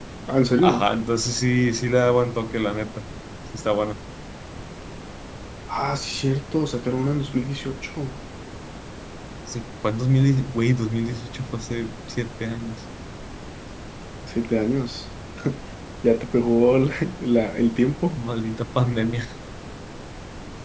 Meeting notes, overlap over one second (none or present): none